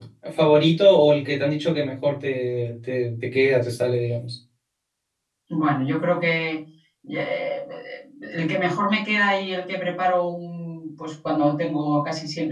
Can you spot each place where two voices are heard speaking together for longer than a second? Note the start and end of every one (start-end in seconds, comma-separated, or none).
none